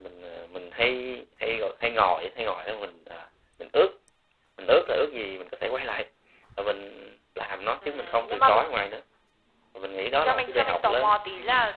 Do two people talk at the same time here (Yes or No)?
Yes